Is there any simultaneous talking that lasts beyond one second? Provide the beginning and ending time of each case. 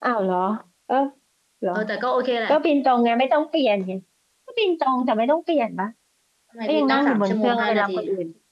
6.7-8.0

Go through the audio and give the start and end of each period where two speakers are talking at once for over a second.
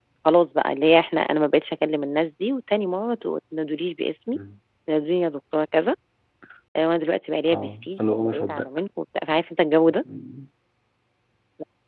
7.5-8.7

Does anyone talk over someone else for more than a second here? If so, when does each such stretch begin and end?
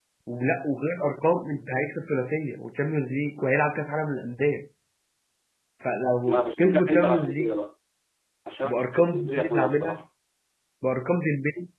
6.2-7.5, 8.6-10.0

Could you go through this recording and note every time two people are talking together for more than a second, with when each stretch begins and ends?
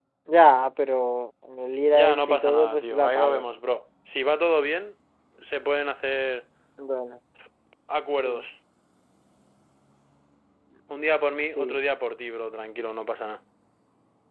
1.9-3.4

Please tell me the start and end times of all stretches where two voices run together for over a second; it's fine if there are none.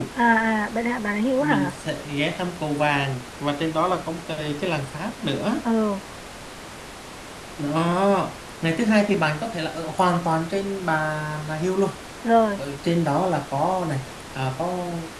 none

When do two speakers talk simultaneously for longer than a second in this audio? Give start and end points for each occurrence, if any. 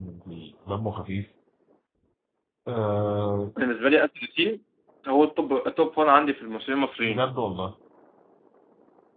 none

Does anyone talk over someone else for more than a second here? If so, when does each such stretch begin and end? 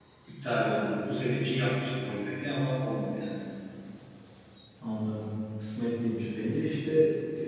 none

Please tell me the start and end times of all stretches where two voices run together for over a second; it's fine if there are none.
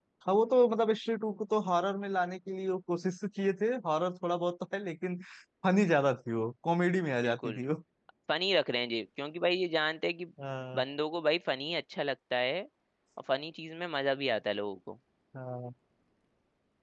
none

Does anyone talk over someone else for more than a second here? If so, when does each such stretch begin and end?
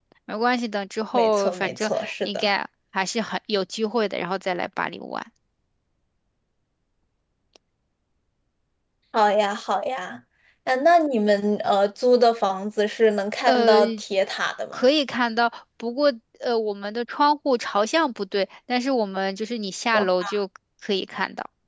1.1-2.5

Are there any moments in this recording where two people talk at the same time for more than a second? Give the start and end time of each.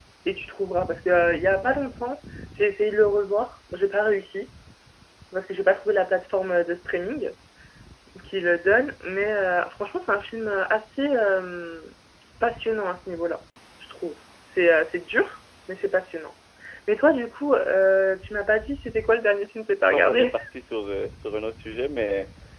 none

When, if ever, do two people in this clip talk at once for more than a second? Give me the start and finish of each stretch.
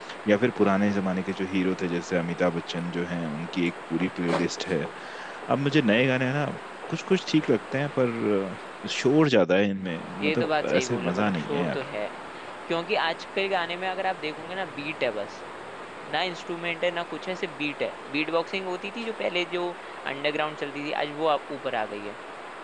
10.2-11.8

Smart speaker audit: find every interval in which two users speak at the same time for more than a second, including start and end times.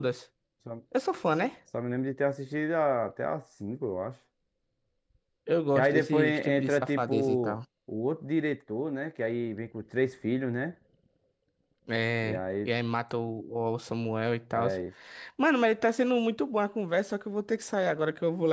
5.8-7.6

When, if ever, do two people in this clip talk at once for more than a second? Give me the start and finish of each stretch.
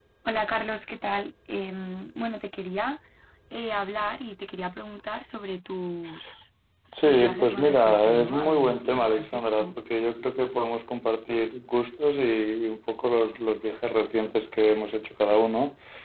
7.0-9.7

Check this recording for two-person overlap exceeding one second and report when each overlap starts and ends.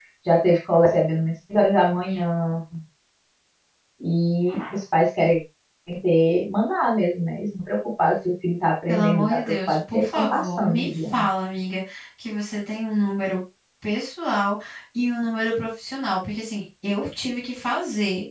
8.9-11.3

